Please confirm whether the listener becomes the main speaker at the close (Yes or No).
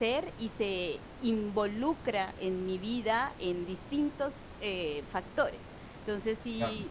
No